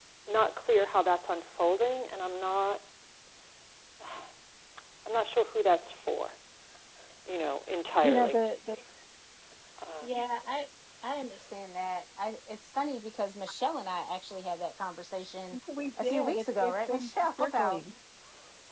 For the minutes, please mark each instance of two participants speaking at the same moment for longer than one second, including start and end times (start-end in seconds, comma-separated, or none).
16.0-17.8